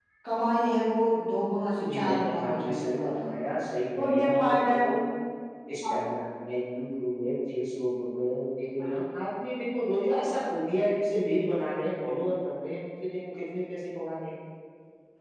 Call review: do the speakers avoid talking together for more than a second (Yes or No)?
No